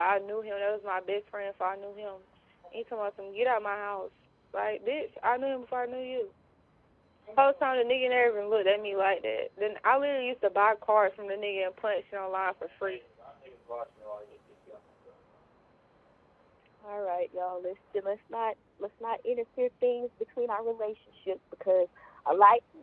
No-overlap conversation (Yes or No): Yes